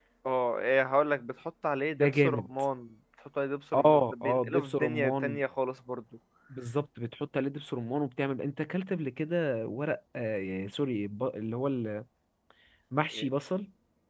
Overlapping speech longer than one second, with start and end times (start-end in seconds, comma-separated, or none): 3.7-5.2